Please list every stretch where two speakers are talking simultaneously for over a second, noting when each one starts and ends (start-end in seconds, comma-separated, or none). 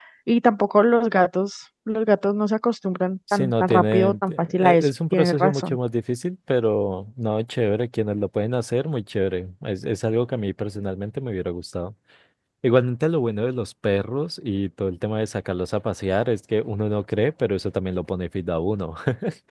3.3-5.8